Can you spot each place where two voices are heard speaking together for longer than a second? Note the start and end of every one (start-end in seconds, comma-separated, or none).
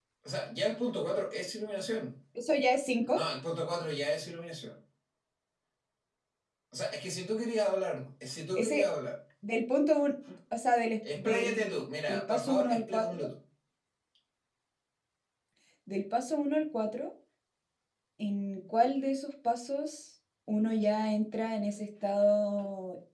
11.2-13.3